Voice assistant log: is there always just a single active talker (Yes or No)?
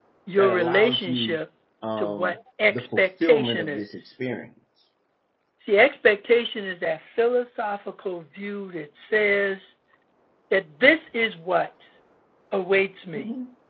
No